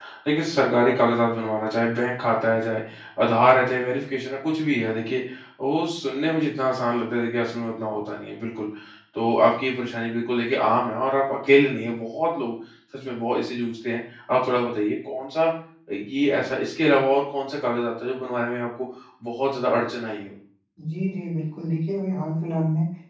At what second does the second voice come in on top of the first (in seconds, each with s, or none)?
none